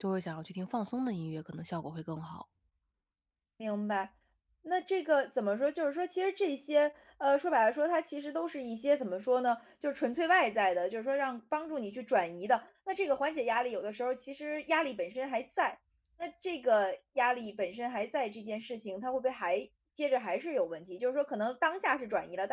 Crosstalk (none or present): none